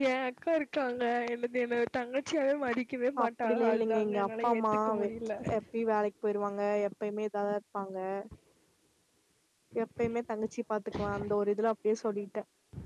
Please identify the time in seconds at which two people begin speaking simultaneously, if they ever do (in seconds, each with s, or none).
3.2 s